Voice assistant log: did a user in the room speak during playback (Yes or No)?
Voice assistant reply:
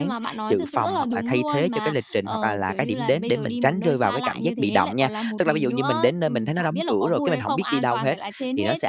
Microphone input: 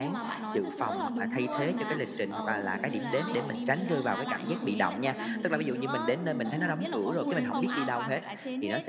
Yes